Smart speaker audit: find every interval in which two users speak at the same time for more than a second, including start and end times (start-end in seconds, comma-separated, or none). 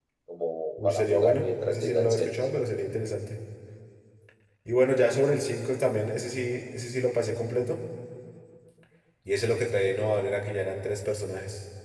0.8-2.3